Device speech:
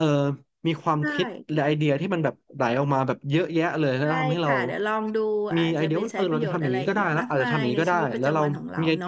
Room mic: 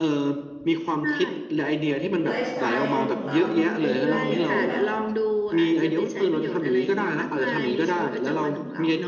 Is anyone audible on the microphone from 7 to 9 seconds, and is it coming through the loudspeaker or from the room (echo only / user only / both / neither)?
echo only